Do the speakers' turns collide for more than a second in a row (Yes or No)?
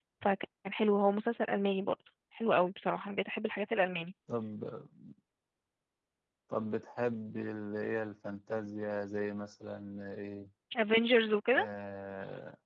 No